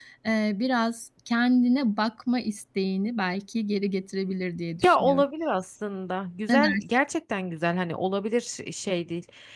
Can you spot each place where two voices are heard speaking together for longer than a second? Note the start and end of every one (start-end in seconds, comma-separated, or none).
none